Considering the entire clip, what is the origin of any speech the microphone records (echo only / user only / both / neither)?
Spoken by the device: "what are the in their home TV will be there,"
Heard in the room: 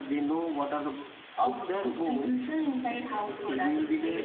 both